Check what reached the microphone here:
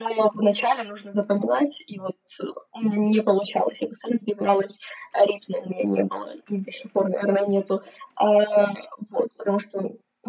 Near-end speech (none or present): none